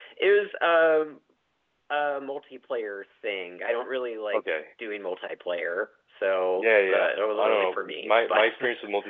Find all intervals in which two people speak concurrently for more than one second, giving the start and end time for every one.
6.6-8.5

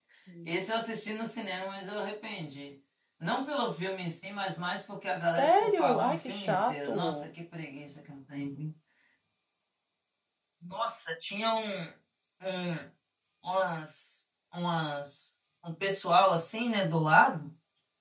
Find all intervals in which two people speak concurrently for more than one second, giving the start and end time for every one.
5.4-7.1

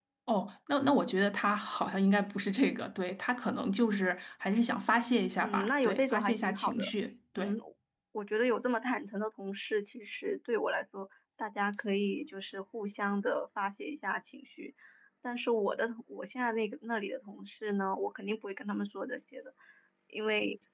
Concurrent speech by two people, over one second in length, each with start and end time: 5.4-6.9

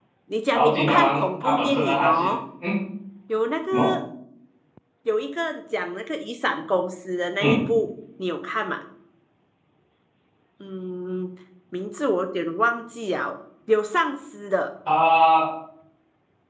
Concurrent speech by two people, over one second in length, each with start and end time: 0.5-2.4

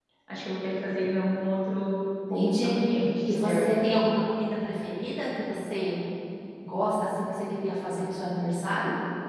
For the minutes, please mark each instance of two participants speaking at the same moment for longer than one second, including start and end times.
none

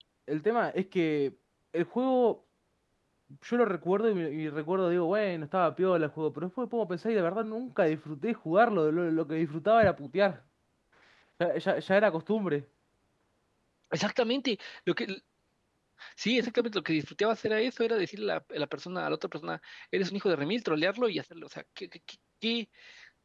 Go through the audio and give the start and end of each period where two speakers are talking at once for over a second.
none

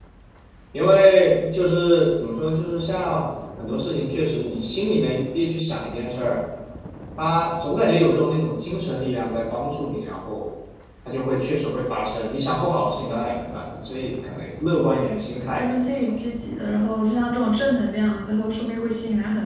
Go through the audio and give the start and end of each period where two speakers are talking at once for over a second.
14.9-16.3

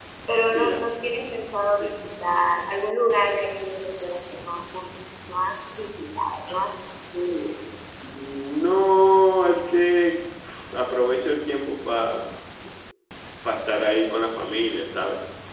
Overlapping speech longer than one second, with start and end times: none

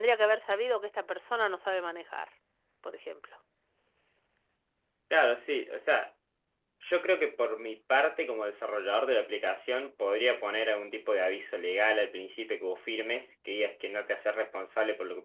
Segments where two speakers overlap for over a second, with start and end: none

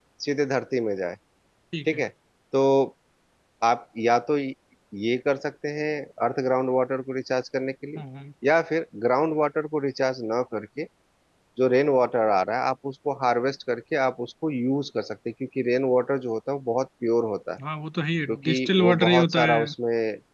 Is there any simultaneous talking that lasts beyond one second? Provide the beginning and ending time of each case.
18.3-19.7

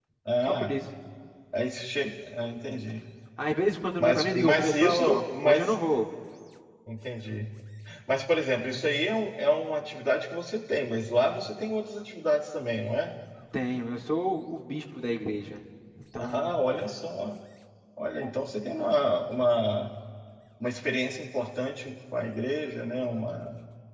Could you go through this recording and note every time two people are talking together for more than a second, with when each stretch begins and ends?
4.0-5.8

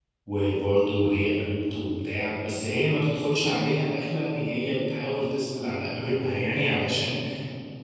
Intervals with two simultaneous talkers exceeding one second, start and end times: none

